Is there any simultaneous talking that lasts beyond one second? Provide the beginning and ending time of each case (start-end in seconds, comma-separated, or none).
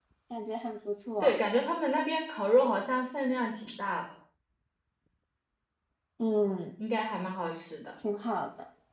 none